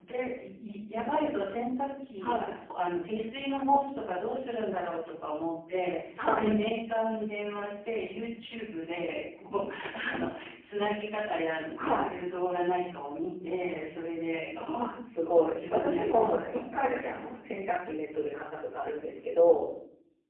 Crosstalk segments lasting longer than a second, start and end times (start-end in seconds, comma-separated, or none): 15.2-16.6